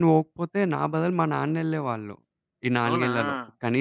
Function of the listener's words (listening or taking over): listening